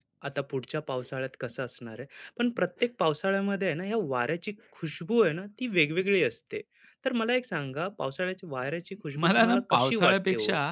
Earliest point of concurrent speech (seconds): 9.2 s

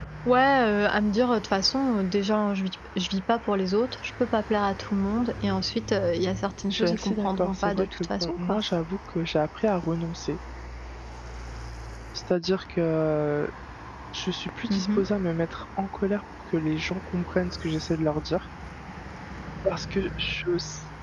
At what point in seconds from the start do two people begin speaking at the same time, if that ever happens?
6.7 s

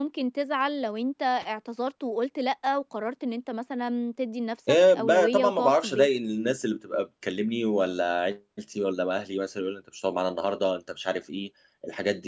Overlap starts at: 4.7 s

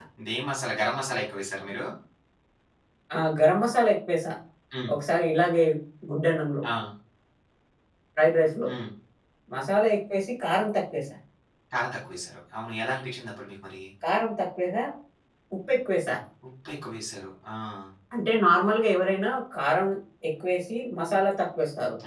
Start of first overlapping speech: none

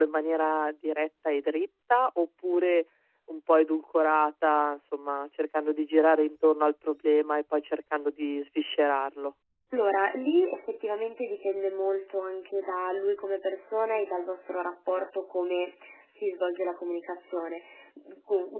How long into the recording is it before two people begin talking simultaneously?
none

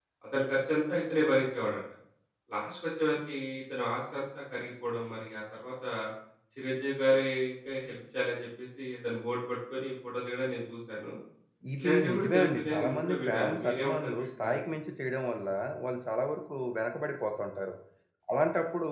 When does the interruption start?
11.8 s

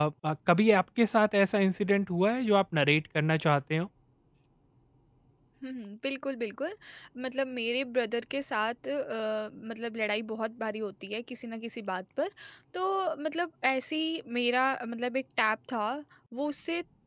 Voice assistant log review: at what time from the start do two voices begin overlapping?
none

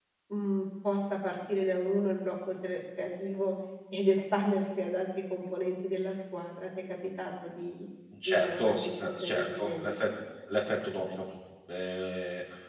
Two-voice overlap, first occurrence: 8.1 s

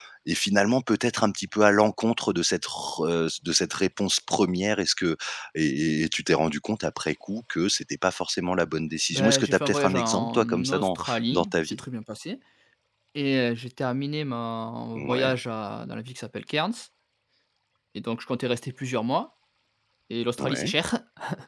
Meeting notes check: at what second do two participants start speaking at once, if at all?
9.1 s

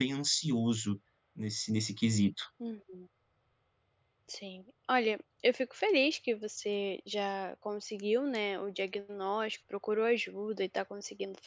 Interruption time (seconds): none

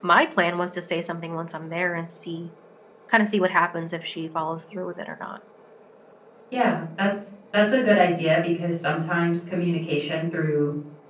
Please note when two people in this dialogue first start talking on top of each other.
none

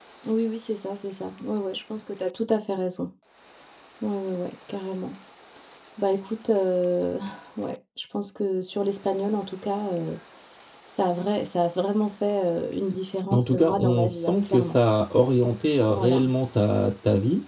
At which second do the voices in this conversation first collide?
13.3 s

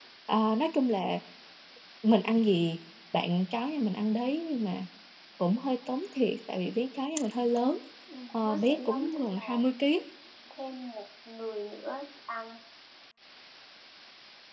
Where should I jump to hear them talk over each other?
8.3 s

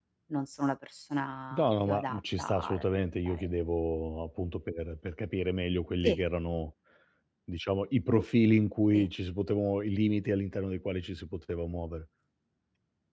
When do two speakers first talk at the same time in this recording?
1.5 s

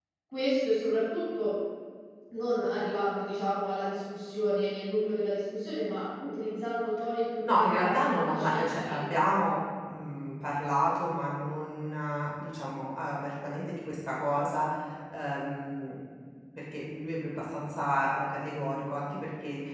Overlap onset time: 7.4 s

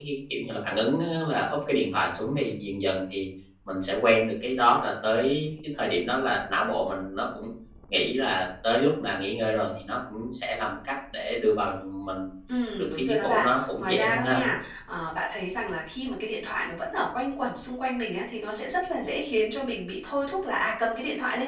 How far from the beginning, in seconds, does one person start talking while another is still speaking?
12.8 s

